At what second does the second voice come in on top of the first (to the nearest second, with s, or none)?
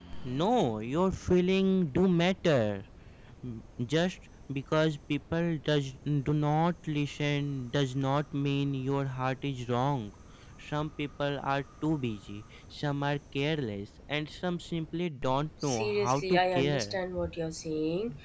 16 s